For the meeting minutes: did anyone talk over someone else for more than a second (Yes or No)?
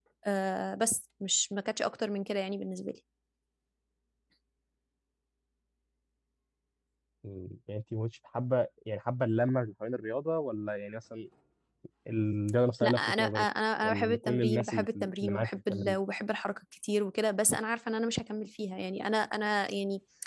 Yes